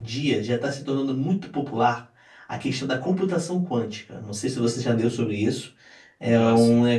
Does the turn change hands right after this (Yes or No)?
No